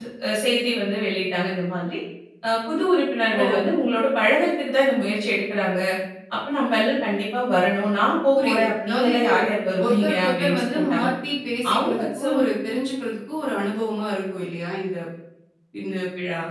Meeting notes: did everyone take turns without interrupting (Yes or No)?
No